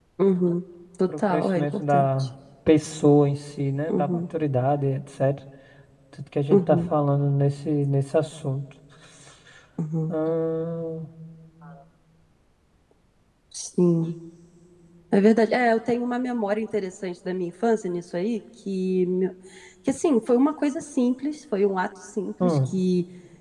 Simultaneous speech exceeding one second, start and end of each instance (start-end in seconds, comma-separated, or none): 1.1-2.3